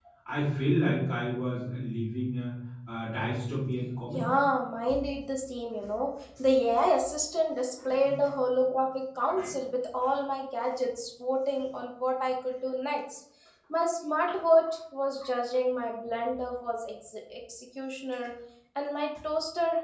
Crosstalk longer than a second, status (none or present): none